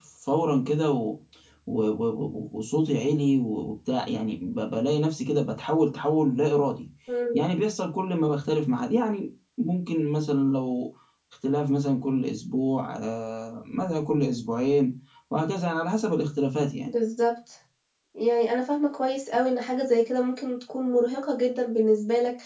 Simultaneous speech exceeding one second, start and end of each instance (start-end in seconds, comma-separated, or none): none